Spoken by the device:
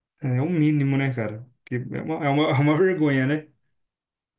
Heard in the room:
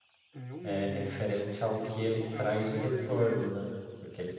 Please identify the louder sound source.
user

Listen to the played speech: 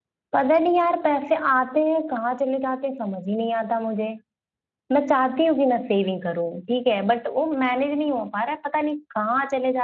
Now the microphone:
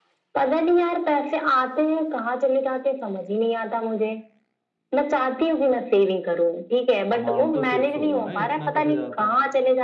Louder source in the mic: echo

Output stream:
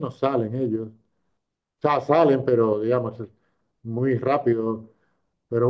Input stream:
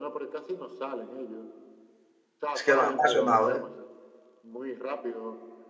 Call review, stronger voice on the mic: user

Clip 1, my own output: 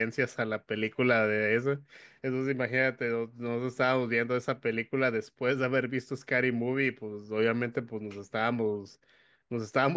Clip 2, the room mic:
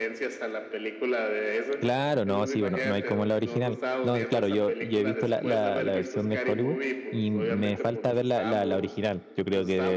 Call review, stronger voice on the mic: user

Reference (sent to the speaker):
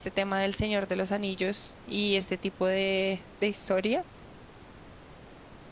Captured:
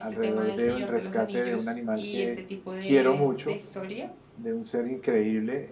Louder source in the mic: user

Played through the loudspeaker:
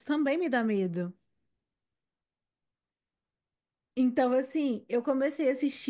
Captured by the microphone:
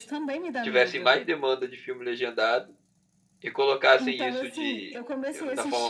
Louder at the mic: user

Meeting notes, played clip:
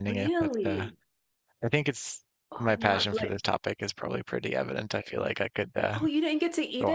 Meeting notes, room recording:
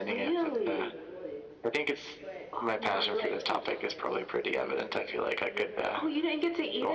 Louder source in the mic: echo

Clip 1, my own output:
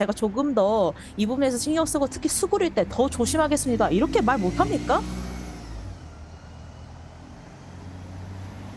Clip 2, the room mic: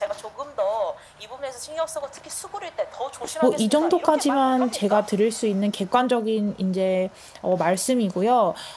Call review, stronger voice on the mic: user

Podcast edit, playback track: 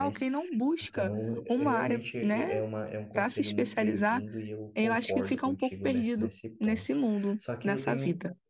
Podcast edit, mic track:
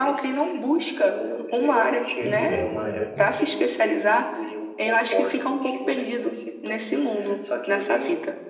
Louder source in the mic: echo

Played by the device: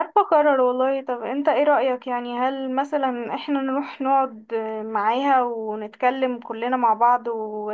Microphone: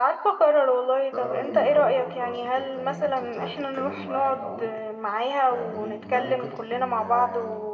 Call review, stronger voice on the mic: echo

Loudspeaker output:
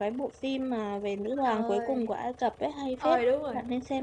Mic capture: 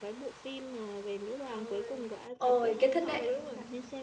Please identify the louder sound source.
user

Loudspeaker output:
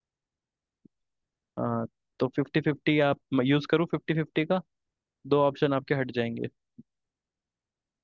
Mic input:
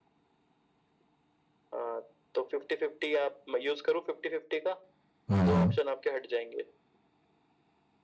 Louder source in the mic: user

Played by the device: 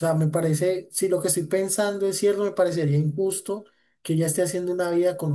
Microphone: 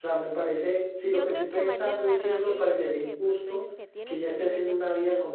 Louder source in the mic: echo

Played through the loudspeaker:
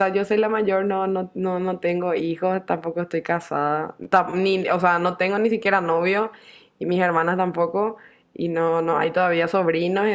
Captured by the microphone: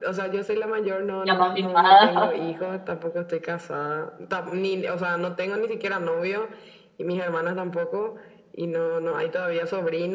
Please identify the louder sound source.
user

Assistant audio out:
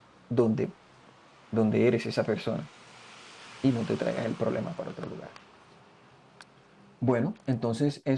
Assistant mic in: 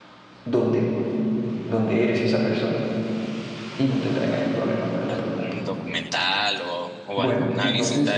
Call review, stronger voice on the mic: echo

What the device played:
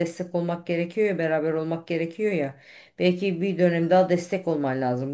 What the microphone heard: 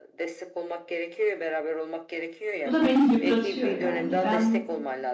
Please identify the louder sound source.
user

